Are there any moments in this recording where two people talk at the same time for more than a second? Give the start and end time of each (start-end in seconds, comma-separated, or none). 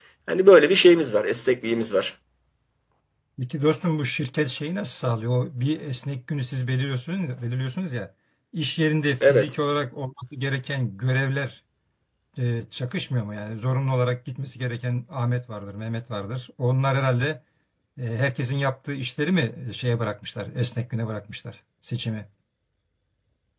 none